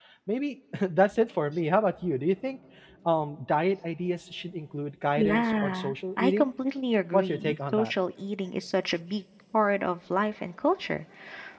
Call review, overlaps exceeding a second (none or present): present